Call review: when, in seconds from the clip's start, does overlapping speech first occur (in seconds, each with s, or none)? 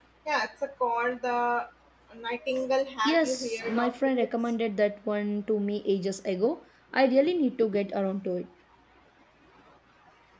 3.0 s